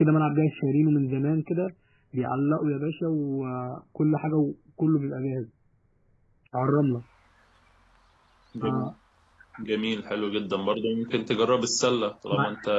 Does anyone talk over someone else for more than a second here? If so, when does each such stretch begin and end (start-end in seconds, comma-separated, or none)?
none